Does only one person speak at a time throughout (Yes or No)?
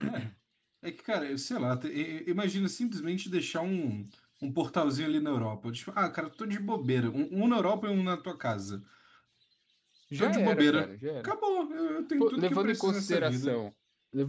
No